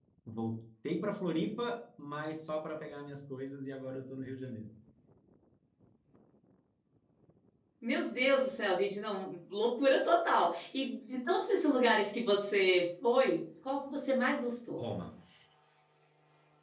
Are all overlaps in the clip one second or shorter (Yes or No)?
Yes